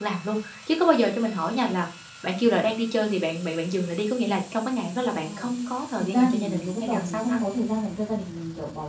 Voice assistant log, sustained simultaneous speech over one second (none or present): present